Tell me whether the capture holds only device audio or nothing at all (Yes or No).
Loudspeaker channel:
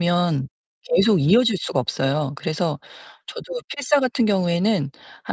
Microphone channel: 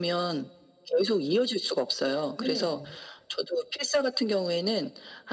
No